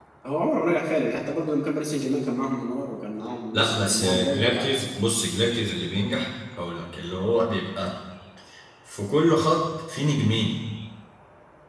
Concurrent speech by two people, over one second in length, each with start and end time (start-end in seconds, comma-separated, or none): 3.5-4.8